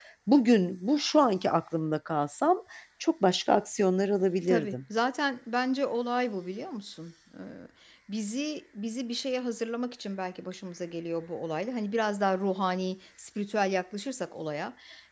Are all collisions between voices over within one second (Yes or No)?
Yes